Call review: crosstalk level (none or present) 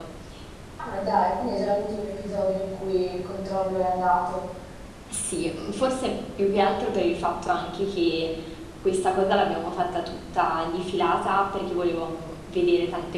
none